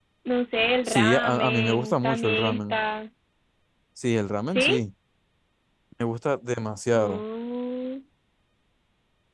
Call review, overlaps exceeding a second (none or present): present